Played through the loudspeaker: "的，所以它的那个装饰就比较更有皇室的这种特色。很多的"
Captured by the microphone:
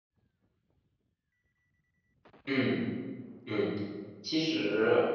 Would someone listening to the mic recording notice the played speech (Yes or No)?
No